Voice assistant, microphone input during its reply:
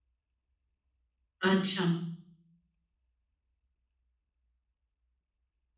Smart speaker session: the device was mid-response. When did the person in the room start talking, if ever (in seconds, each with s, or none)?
1.5 s